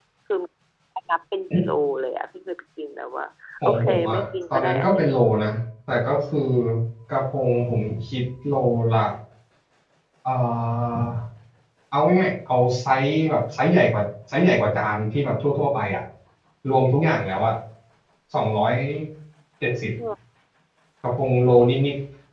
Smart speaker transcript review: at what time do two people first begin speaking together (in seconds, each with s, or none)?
3.6 s